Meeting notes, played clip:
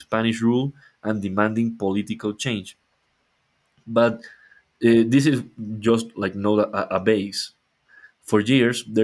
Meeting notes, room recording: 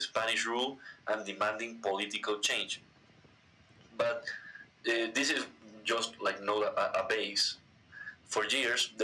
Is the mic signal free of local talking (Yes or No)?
Yes